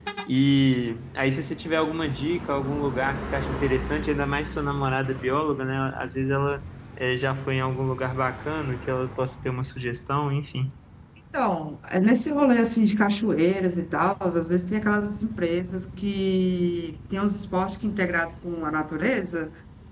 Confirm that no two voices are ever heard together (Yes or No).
Yes